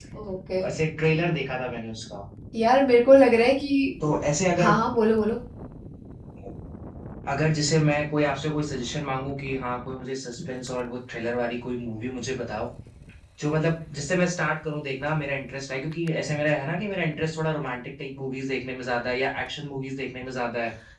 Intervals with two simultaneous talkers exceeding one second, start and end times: none

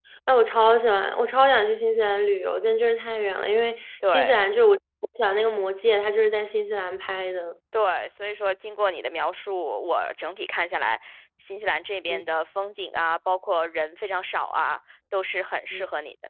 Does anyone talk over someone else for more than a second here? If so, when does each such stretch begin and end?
none

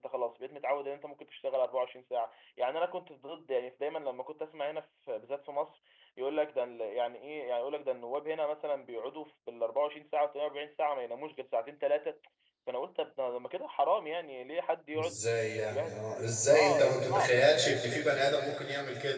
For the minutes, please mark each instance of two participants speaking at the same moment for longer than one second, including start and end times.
15.0-17.4

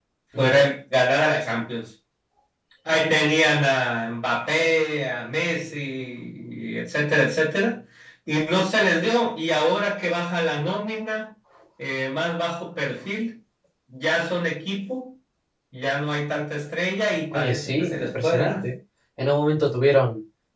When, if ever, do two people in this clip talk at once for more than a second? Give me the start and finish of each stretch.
17.3-18.7

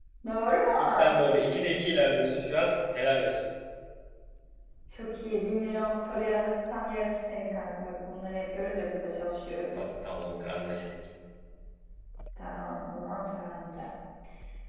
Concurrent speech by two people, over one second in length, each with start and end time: none

